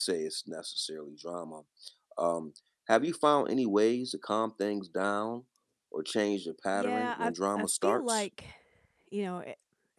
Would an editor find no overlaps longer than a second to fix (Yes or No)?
No